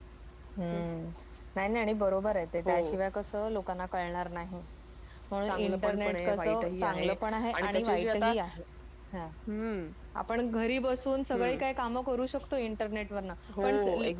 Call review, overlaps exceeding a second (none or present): present